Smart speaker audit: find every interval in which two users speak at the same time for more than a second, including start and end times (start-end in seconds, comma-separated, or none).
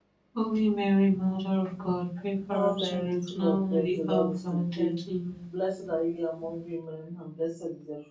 2.5-4.9